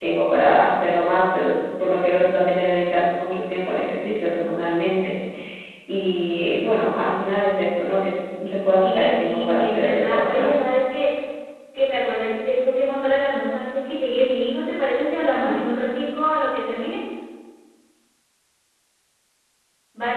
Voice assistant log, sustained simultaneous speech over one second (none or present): present